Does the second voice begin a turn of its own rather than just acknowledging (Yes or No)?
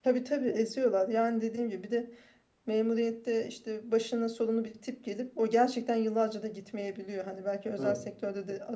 No